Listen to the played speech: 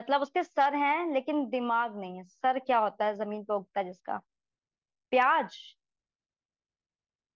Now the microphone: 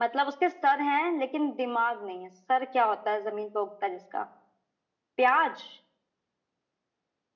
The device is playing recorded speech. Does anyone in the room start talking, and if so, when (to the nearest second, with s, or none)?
none